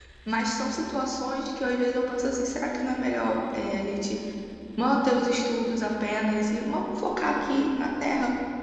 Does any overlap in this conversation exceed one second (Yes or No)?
No